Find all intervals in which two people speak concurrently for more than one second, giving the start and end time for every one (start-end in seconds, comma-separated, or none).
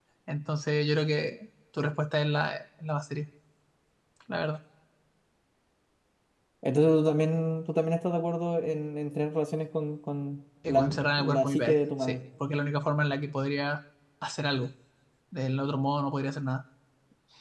10.7-12.2